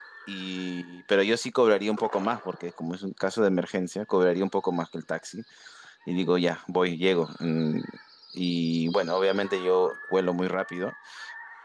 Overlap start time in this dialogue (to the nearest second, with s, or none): none